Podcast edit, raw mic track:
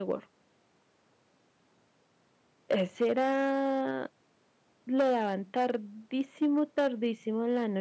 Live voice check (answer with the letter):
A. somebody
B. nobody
A